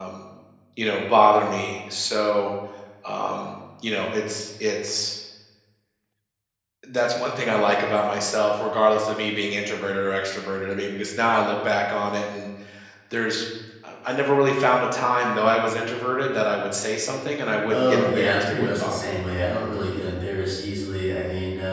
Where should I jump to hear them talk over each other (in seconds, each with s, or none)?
17.6 s